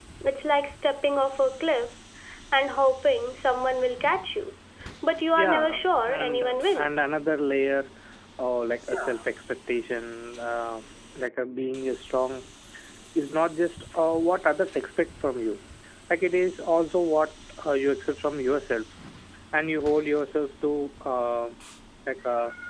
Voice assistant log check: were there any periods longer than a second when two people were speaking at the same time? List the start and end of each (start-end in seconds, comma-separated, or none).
5.3-6.9